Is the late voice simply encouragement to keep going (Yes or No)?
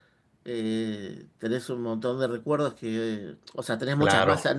Yes